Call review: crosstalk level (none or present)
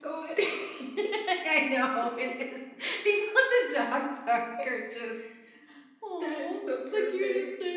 present